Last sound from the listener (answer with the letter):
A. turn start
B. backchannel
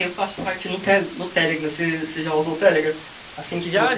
B